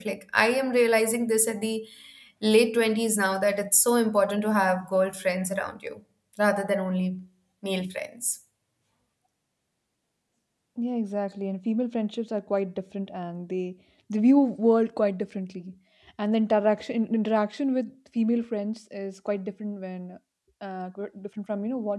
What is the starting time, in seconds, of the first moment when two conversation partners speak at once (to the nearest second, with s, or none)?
none